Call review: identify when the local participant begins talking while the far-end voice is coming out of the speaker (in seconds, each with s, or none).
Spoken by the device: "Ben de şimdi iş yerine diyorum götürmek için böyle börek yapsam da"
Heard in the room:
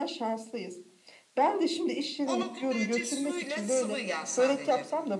2.2 s